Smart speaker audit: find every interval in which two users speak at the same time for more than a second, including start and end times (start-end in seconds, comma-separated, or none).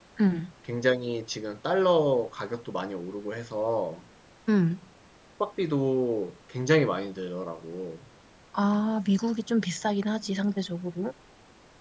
none